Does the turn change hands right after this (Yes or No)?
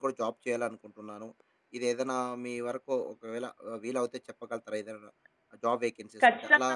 Yes